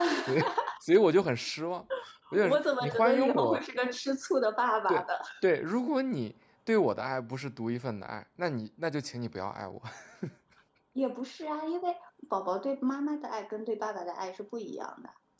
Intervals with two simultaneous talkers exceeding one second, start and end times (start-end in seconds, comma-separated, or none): 2.4-3.6